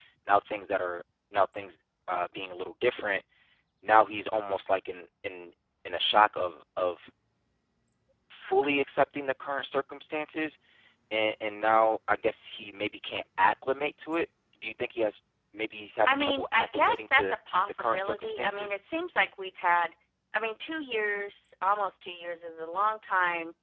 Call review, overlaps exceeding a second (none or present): present